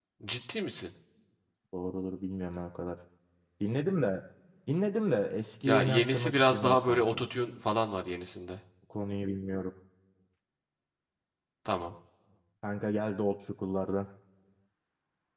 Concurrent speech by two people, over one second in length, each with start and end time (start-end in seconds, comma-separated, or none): 5.6-7.2